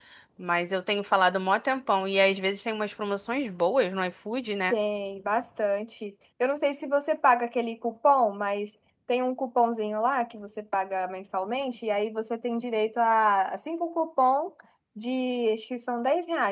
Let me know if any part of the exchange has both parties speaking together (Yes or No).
No